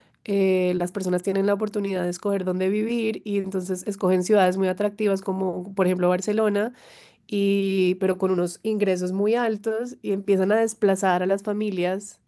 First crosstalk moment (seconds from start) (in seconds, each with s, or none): none